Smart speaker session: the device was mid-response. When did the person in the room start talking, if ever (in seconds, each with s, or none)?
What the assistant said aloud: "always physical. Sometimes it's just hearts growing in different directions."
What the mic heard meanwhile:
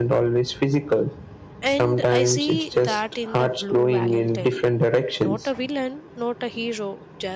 1.6 s